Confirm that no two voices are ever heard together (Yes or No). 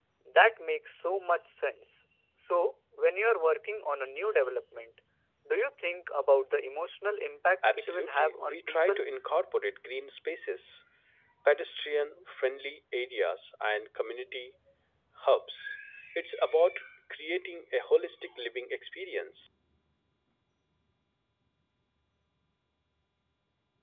No